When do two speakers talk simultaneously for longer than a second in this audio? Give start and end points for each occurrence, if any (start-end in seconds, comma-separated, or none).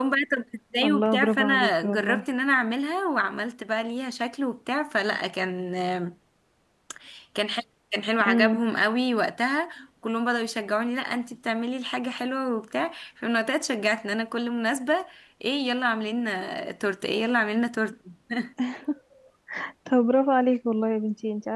0.9-2.2